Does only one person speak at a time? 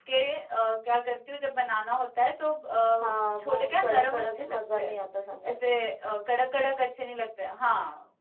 No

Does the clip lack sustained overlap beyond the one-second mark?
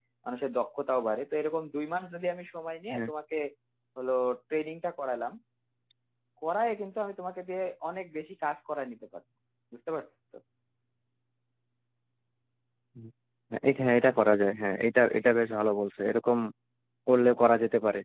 Yes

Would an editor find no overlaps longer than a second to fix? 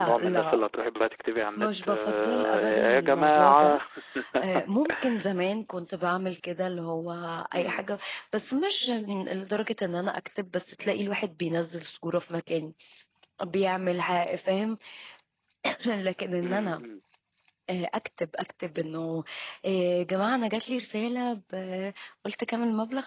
No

